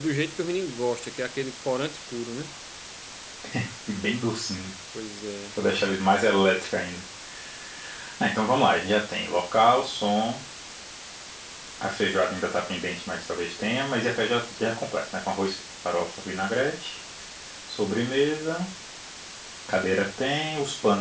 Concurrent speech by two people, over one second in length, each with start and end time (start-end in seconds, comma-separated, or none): none